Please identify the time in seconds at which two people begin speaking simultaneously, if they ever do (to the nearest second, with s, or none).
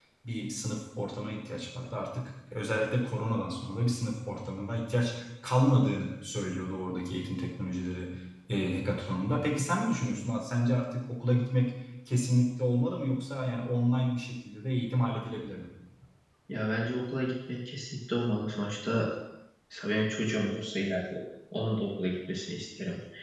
none